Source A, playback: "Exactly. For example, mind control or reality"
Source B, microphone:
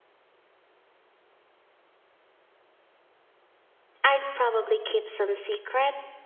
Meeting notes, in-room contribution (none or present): present